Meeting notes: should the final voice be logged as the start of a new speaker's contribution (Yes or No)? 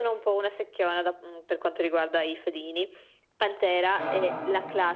No